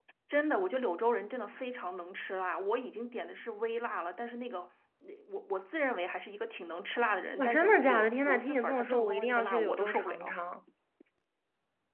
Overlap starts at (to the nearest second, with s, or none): 7 s